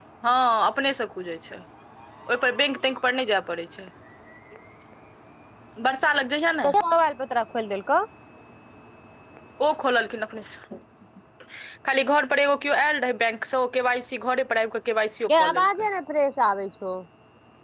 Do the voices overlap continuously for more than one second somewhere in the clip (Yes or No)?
No